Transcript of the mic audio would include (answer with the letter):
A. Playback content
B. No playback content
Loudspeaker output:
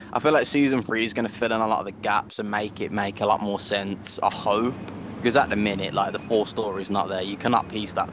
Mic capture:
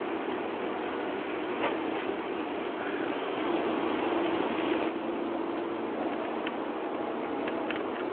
B